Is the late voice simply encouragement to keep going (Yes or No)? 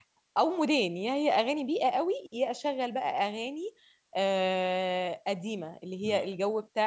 Yes